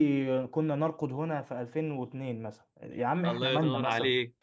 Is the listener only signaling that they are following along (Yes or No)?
No